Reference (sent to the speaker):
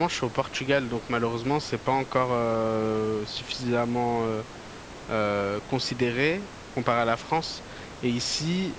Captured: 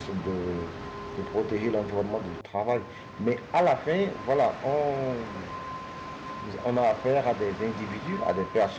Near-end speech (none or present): present